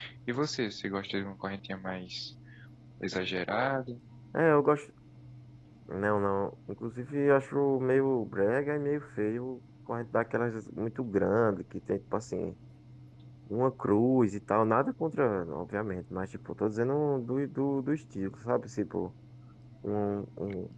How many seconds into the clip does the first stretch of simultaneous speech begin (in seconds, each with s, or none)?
none